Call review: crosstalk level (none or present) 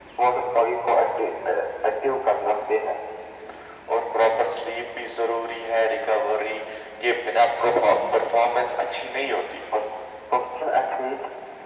none